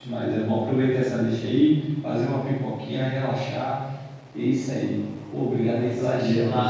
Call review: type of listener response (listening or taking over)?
taking over